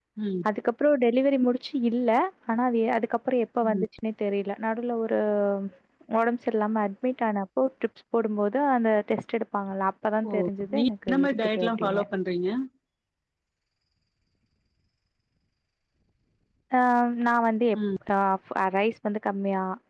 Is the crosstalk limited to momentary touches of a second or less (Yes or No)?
No